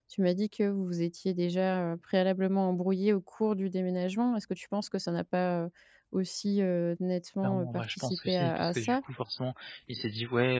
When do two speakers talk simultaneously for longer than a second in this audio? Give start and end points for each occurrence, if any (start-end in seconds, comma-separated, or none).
7.4-9.0